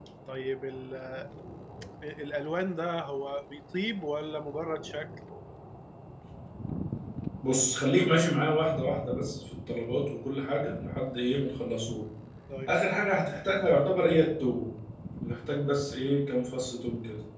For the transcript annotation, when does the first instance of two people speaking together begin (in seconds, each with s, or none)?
none